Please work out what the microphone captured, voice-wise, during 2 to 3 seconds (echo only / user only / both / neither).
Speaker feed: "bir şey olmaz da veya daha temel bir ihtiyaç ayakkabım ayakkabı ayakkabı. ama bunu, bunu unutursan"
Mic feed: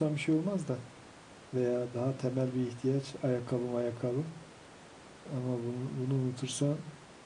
echo only